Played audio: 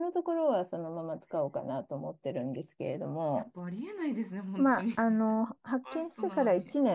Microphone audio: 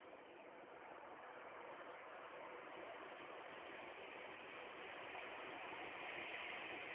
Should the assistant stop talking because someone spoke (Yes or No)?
No